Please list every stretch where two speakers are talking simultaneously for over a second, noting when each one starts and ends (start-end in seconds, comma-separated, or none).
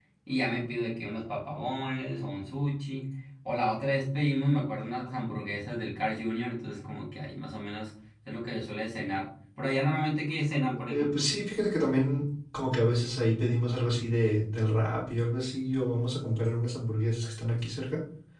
none